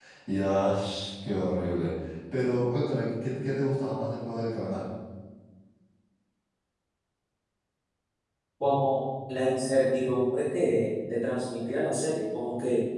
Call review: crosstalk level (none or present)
none